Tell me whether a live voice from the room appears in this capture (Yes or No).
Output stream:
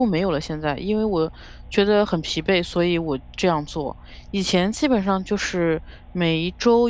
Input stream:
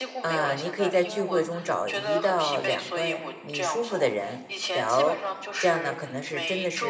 Yes